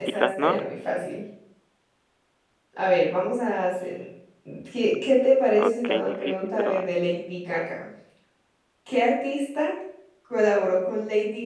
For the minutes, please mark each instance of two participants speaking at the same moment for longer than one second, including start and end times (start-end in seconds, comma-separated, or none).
5.6-6.9